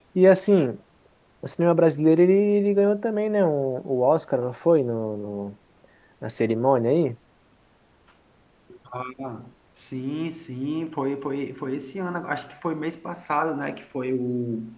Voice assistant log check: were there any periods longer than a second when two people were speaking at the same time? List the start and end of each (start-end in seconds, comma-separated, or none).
none